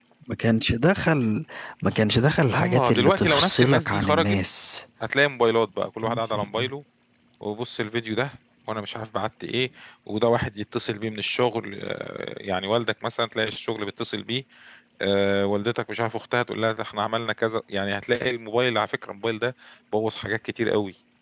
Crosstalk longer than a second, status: present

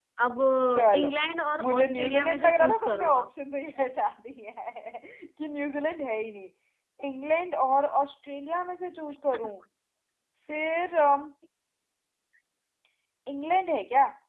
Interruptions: present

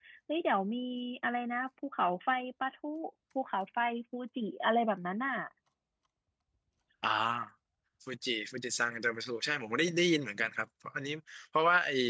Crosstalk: none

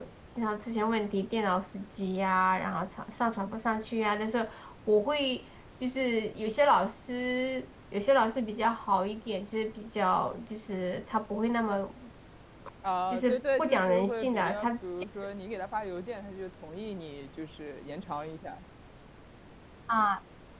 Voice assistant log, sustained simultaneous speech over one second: present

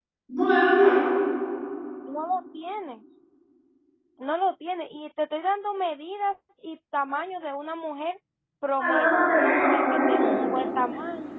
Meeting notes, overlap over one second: present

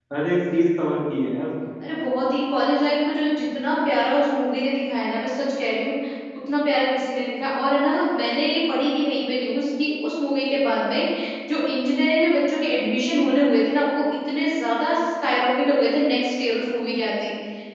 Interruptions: none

